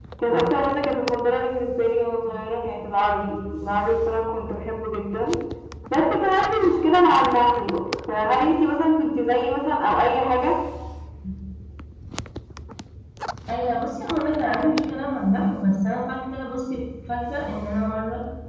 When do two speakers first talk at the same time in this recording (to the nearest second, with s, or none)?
none